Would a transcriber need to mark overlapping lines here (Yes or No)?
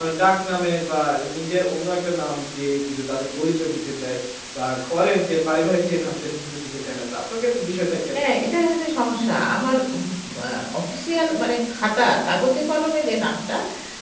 No